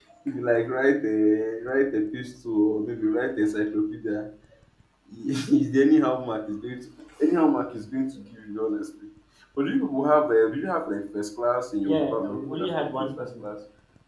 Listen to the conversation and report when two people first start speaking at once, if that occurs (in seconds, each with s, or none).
11.9 s